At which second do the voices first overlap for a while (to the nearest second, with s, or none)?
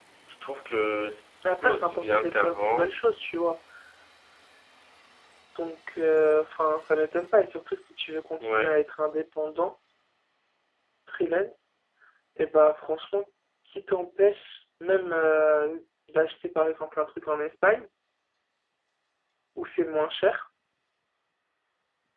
2 s